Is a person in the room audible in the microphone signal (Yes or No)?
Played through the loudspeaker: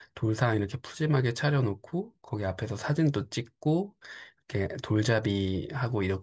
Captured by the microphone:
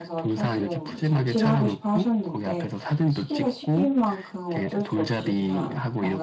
Yes